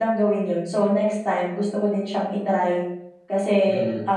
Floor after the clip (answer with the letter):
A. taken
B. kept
B